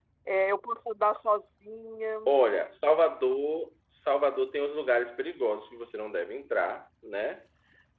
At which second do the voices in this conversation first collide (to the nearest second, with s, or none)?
none